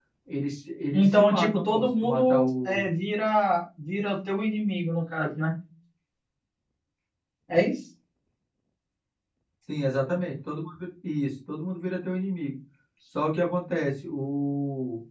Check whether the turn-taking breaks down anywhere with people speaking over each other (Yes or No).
Yes